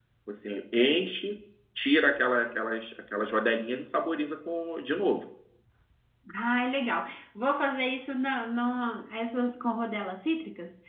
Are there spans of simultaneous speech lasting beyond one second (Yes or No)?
No